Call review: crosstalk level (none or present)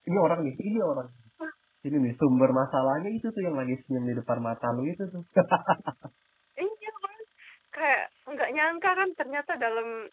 none